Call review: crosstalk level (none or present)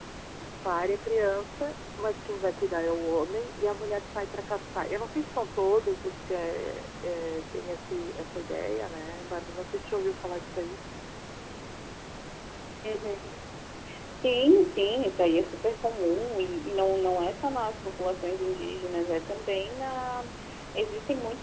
none